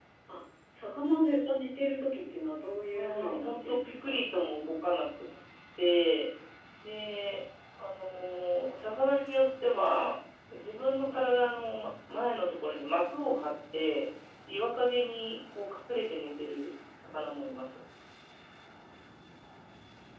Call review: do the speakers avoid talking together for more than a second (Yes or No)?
No